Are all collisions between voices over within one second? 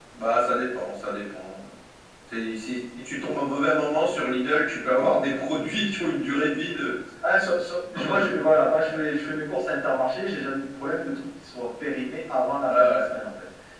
Yes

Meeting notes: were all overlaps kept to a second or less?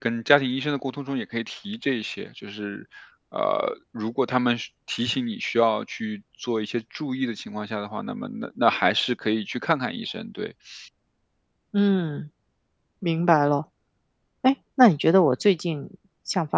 Yes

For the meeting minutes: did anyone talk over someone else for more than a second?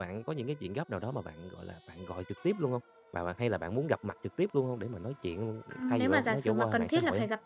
Yes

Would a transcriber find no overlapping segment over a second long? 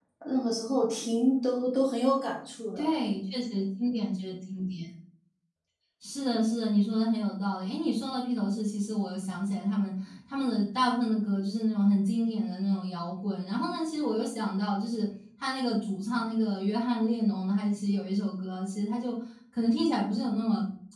Yes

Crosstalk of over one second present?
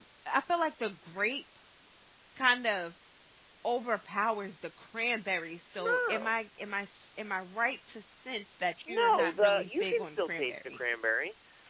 Yes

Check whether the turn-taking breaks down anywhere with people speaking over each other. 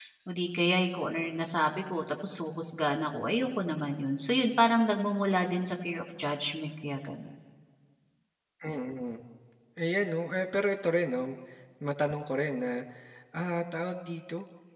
No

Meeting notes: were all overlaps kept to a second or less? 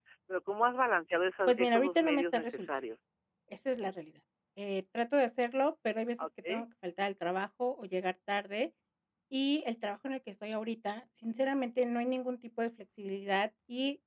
No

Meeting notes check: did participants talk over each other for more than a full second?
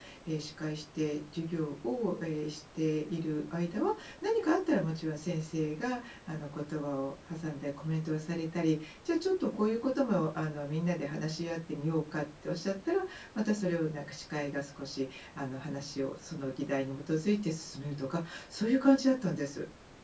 No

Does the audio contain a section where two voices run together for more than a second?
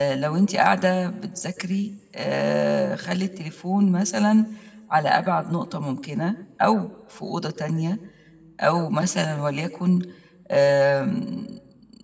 No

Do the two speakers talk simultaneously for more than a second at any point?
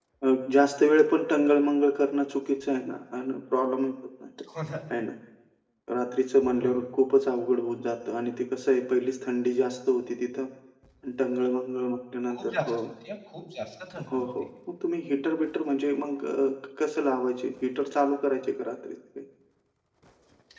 No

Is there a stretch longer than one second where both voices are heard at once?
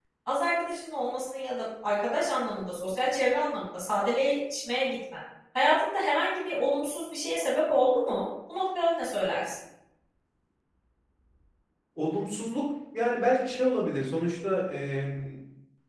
No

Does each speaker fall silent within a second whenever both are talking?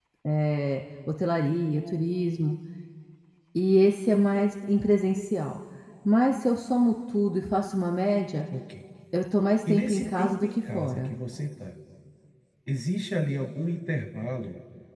No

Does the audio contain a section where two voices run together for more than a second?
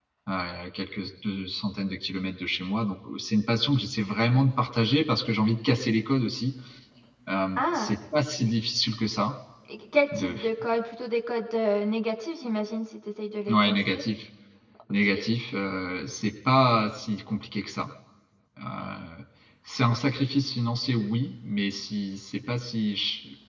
No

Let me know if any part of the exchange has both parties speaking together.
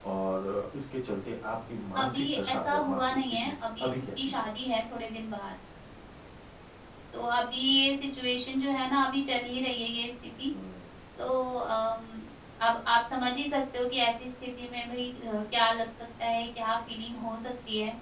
Yes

